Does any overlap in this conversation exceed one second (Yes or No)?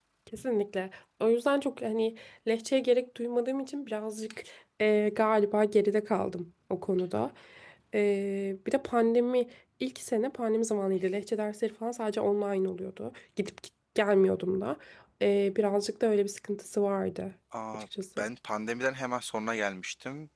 No